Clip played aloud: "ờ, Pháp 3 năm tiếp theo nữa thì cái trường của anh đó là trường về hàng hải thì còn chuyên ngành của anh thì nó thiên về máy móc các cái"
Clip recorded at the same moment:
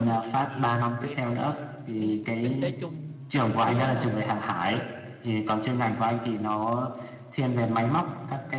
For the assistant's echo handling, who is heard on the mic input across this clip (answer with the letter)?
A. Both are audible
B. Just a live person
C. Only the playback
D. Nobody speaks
A